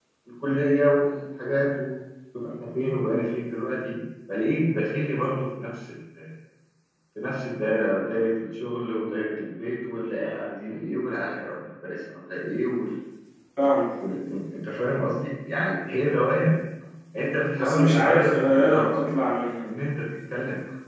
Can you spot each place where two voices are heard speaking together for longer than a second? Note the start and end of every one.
17.6-19.1

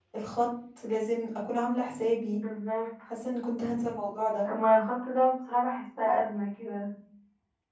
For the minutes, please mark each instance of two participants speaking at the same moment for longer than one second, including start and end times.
none

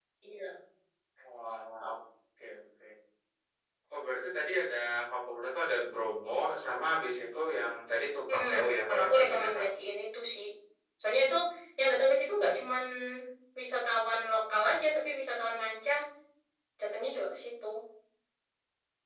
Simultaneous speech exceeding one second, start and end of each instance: 8.3-9.6

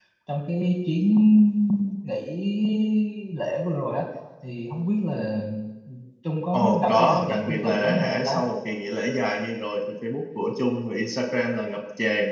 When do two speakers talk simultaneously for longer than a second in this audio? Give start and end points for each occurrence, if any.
6.5-8.4

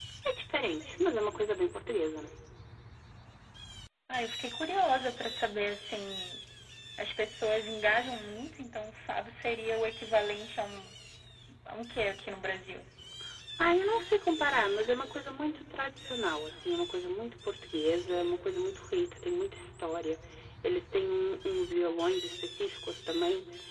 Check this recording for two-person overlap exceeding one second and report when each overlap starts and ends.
none

